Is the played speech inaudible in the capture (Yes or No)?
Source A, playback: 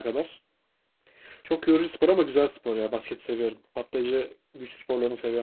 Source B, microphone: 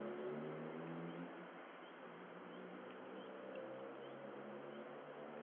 Yes